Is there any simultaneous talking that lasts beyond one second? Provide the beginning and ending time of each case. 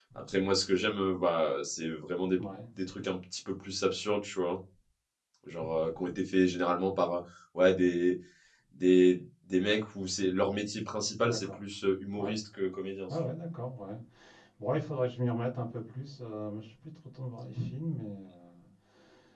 none

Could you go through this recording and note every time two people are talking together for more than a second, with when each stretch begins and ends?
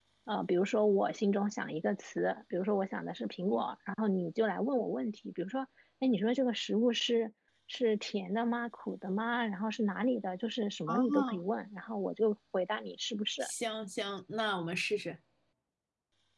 none

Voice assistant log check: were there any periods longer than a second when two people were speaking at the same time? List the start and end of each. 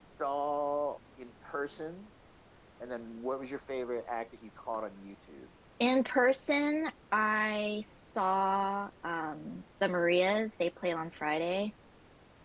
none

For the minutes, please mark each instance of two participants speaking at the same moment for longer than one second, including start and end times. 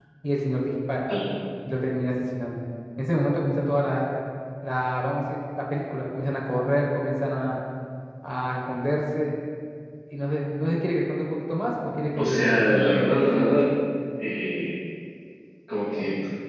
12.2-13.7

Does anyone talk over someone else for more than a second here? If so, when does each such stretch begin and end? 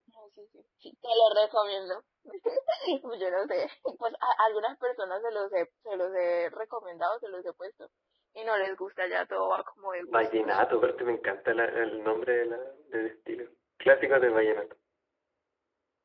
none

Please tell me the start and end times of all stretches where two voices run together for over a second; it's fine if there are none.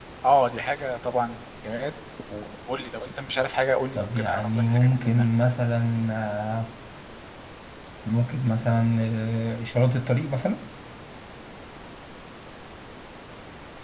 4.0-5.2

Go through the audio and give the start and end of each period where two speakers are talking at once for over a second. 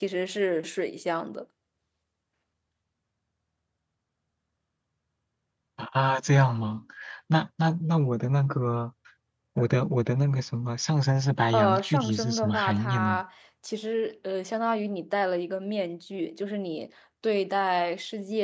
11.5-13.2

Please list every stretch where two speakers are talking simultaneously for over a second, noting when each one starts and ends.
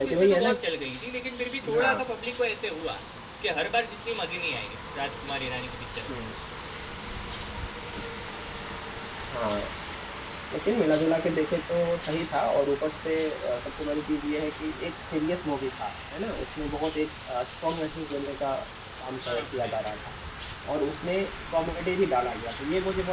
none

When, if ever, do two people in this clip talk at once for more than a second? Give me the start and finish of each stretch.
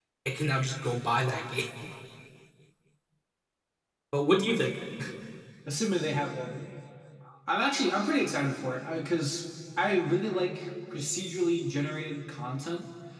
none

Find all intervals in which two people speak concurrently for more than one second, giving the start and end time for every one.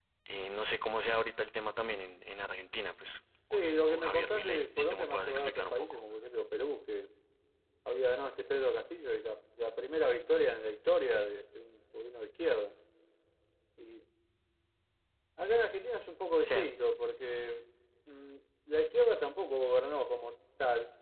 3.5-6.0

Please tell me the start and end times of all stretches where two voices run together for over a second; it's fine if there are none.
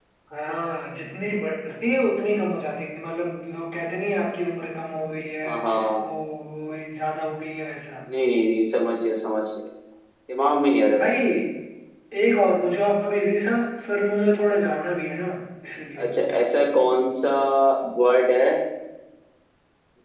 none

